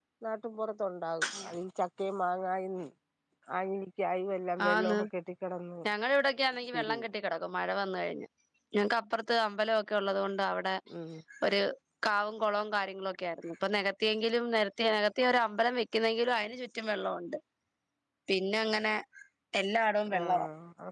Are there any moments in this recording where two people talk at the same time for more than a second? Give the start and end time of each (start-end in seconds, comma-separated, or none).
none